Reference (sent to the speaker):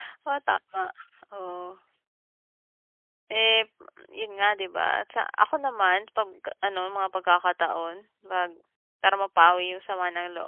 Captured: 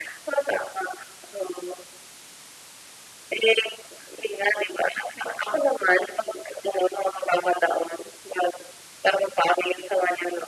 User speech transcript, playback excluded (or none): none